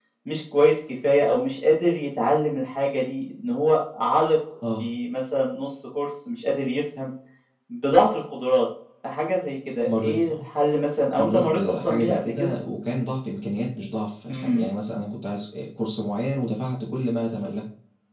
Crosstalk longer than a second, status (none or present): present